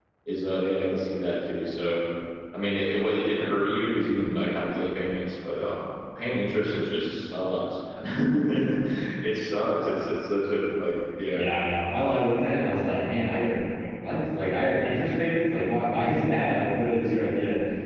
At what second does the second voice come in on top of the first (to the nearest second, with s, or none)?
none